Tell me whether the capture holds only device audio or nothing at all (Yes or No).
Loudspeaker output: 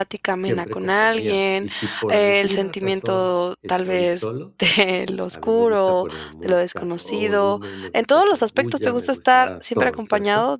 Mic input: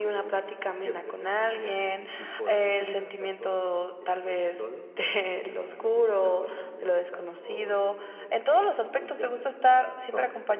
Yes